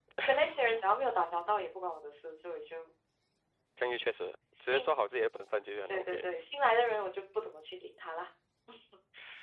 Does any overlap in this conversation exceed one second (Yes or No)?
No